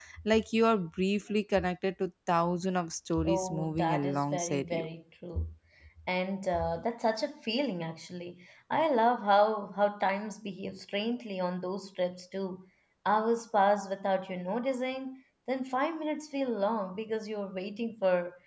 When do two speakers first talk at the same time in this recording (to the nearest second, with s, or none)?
3 s